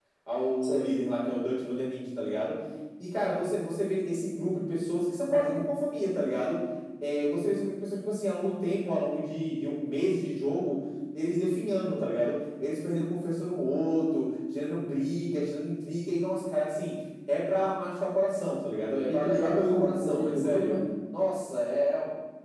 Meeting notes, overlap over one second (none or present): present